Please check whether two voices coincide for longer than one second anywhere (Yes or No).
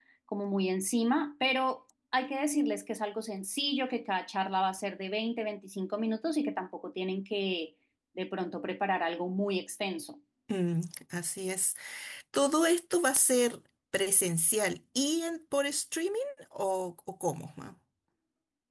No